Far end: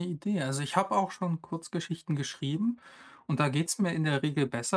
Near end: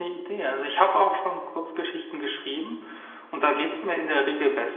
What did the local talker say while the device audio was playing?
none

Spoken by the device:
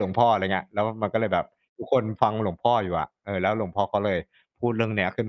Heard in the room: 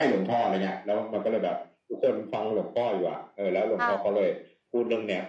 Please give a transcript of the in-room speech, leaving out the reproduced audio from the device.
ค่ะ

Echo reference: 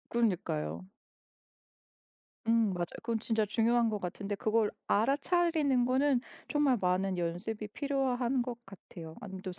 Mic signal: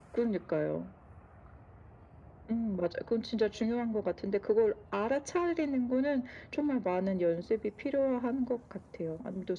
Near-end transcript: none

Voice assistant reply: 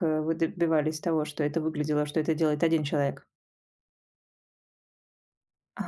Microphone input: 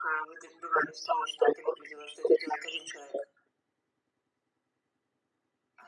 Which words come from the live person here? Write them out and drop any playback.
none

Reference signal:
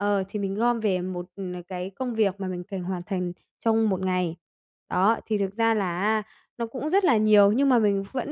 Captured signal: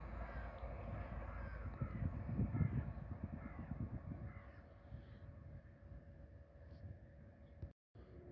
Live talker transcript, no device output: none

